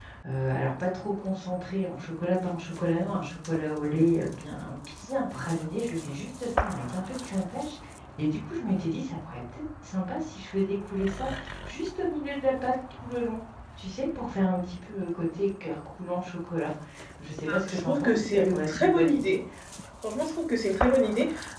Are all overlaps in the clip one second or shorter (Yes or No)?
No